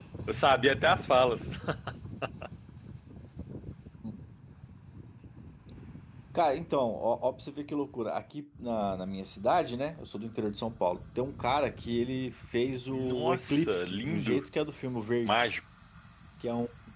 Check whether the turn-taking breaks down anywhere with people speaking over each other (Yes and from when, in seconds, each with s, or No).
Yes, from 12.9 s